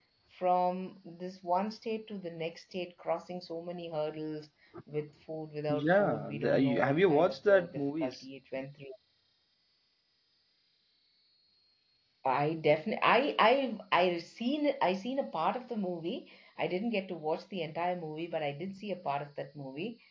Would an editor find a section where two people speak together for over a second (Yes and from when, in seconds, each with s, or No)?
Yes, from 5.7 s